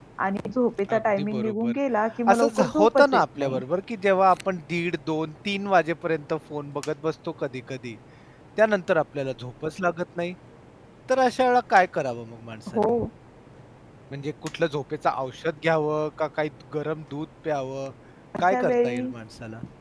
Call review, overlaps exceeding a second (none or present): present